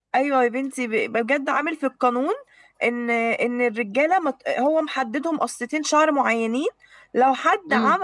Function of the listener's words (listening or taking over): listening